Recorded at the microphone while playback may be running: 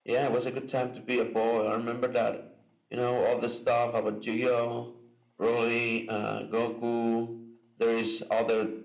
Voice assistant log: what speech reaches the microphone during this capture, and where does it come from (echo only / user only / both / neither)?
echo only